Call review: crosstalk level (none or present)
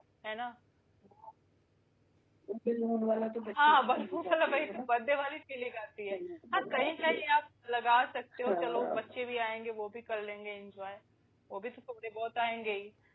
present